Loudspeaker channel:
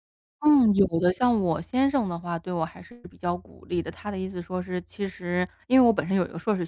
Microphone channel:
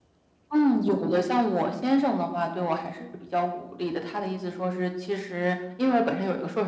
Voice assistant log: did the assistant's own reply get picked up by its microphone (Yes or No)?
Yes